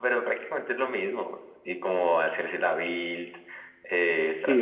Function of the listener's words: taking over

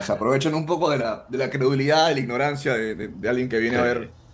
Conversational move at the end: listening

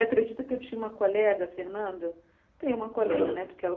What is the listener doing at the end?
listening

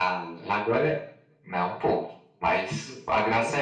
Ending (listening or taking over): listening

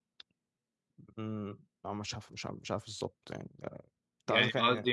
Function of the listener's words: taking over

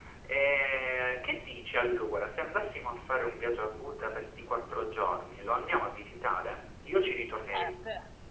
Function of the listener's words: taking over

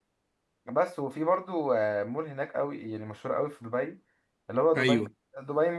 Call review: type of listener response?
listening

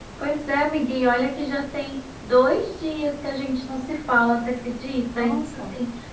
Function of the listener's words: listening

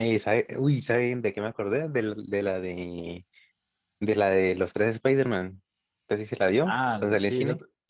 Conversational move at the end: taking over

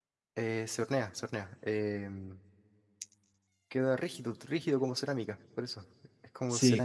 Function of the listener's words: taking over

